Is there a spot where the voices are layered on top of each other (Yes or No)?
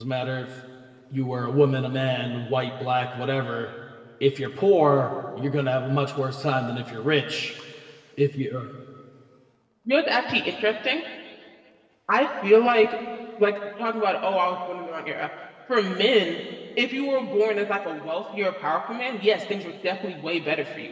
No